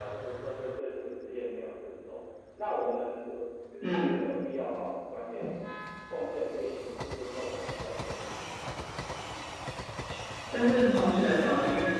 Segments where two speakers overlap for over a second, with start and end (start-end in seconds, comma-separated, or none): none